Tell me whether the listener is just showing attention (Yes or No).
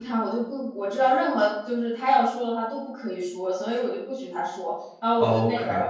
Yes